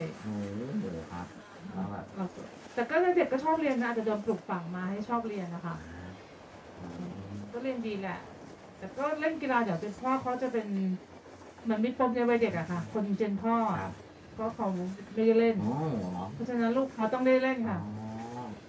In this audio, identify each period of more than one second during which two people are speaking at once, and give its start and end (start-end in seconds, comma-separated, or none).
none